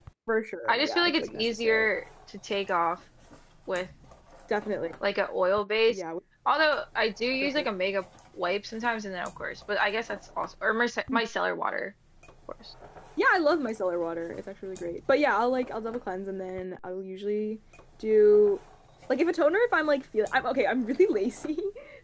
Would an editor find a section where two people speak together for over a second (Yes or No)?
Yes